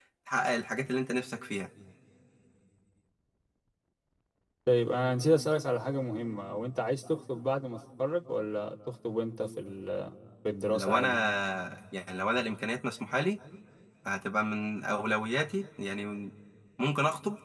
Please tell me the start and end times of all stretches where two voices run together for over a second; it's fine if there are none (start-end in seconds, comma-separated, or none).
none